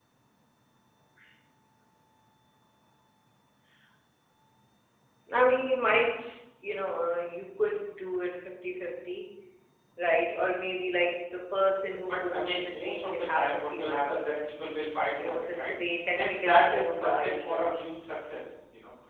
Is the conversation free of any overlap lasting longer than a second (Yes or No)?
No